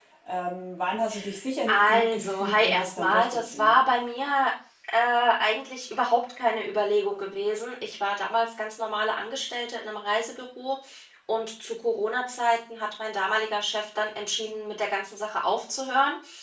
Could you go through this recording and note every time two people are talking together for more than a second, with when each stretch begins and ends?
1.7-3.8

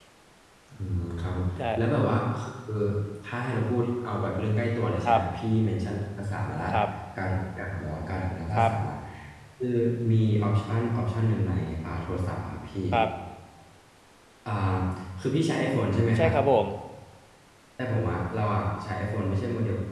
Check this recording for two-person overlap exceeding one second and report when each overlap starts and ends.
none

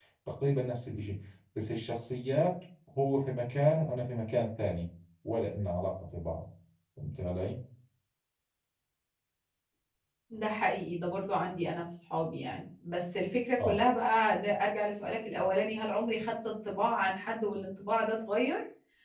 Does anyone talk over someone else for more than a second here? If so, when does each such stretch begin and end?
none

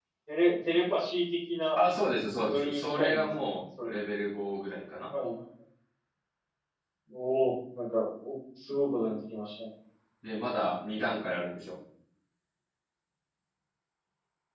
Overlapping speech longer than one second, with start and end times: 2.5-3.9

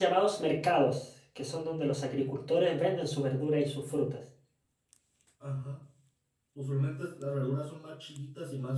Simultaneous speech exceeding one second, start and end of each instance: none

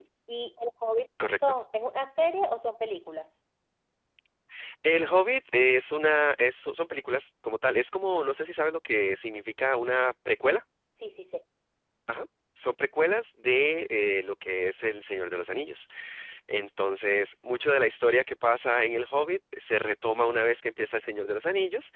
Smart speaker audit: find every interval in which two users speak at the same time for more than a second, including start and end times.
none

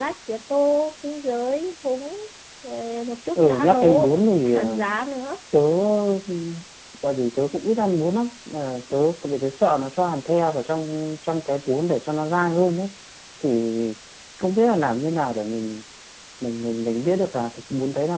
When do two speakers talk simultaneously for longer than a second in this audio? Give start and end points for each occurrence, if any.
3.4-4.8

